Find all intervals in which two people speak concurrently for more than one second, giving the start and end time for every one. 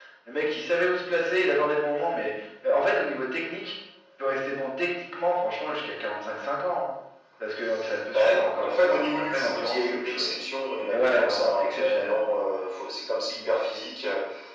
8.1-10.3, 10.9-12.2

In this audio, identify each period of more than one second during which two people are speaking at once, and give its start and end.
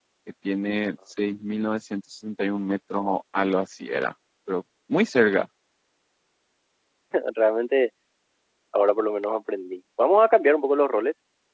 none

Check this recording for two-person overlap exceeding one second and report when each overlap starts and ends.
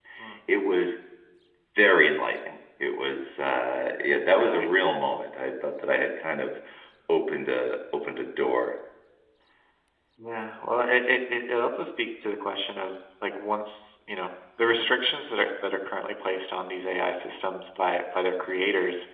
none

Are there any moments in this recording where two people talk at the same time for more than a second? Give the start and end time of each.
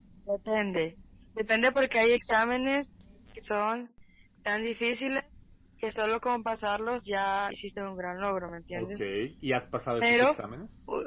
none

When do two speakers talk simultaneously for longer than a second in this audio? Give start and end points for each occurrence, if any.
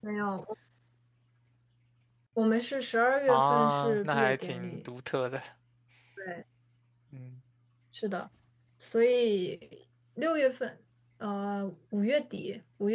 3.3-4.9

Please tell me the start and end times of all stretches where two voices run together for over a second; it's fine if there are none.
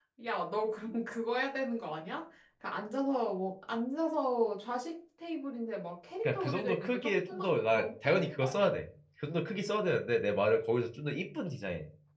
6.2-8.7

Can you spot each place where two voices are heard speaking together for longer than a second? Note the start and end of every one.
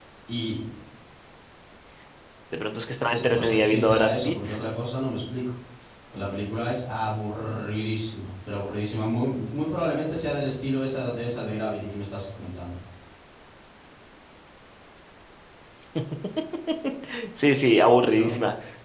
3.1-4.5

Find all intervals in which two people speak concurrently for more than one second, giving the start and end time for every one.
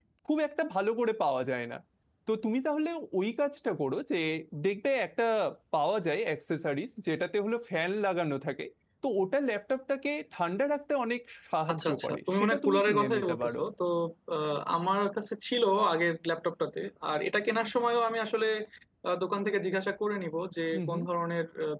11.7-13.6

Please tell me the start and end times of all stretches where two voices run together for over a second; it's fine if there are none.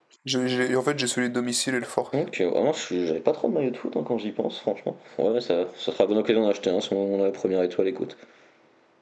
none

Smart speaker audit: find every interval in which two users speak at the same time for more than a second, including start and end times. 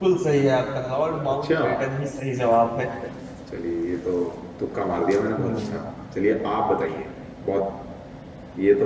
none

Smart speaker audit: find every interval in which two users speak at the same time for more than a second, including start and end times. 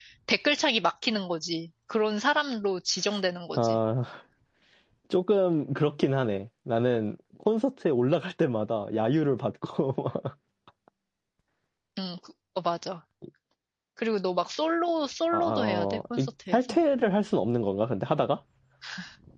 15.3-16.8

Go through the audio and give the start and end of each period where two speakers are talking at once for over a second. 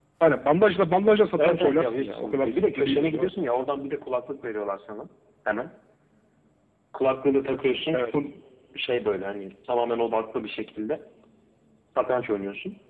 1.4-3.3

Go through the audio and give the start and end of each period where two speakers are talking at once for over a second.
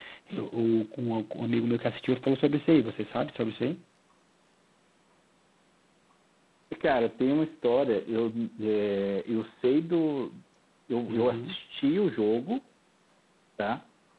none

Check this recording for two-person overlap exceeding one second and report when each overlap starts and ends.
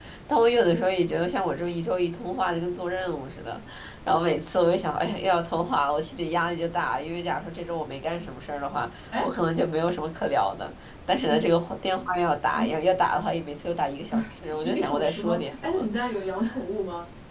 14.6-15.9

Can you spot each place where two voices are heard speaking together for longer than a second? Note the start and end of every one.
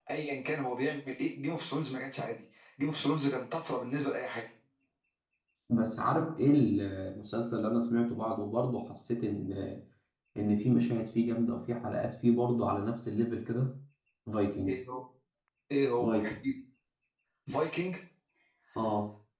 none

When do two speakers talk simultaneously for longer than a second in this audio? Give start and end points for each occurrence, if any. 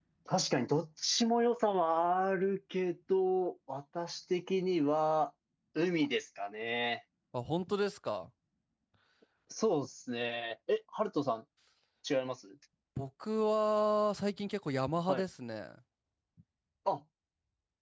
none

